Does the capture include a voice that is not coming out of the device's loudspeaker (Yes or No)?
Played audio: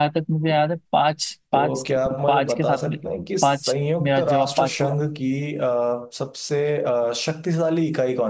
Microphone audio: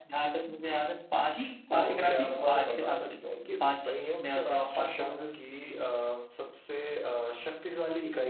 Yes